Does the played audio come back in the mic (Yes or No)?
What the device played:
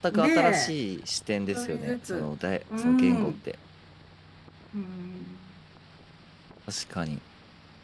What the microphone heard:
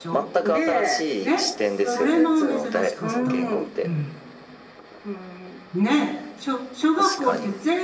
Yes